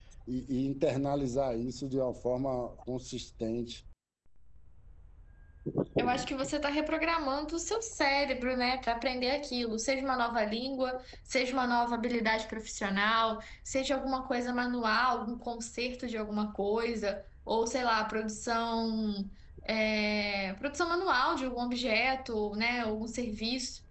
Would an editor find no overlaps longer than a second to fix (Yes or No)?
Yes